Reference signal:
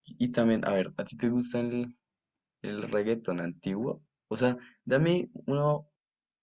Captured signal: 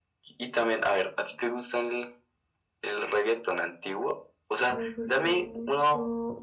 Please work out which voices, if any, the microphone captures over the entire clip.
both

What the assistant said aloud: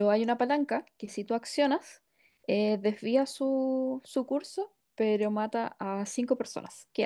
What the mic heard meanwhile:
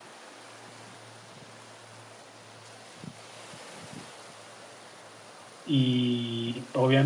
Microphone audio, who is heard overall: user only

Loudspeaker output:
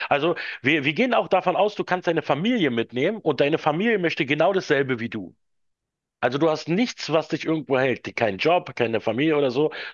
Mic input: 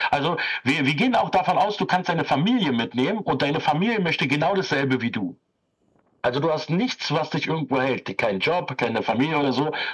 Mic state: echo only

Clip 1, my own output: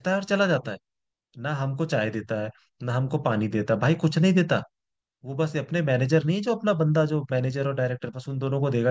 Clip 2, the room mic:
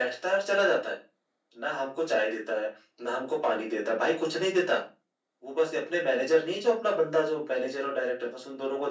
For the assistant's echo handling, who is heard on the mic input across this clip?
echo only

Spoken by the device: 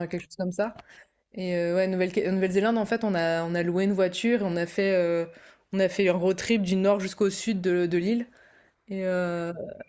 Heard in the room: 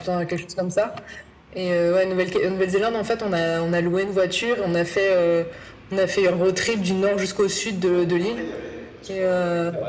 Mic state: both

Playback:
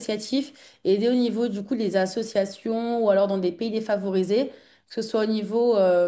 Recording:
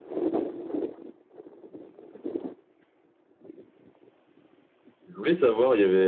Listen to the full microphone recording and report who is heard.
user only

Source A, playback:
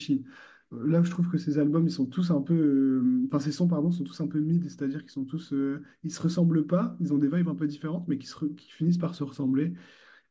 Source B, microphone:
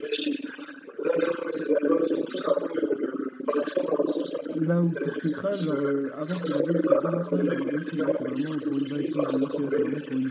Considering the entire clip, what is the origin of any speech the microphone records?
both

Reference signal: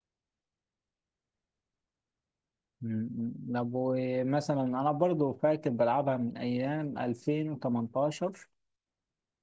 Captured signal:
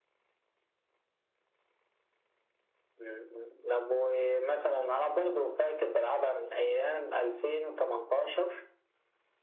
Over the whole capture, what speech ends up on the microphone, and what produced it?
echo only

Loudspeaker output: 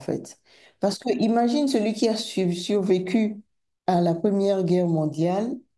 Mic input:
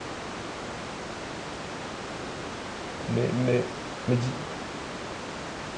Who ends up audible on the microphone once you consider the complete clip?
user only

